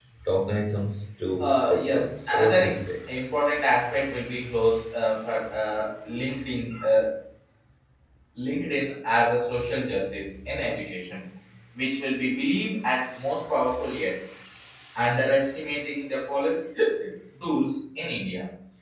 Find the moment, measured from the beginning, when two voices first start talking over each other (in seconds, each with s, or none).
1.4 s